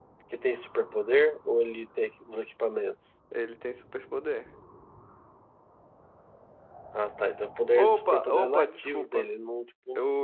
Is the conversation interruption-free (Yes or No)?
No